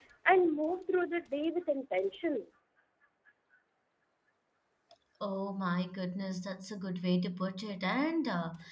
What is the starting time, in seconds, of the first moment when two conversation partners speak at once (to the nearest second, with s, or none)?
none